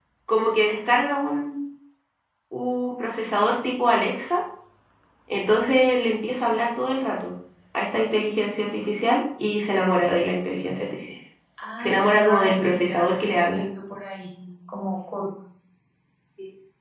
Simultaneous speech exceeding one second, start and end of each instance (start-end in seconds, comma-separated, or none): 11.8-13.6